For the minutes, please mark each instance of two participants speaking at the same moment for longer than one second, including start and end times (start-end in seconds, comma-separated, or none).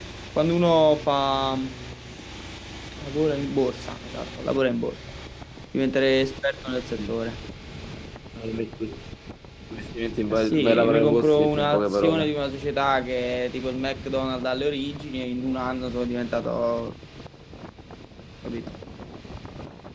10.3-12.3